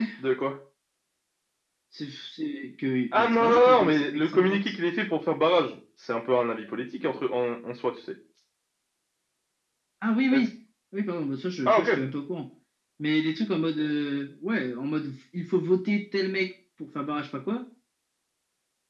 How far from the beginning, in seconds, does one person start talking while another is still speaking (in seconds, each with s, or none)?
3.1 s